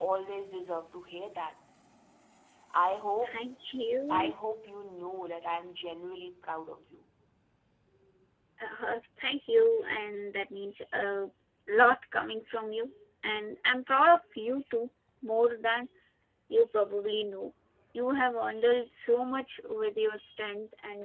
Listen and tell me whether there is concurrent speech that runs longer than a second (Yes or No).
No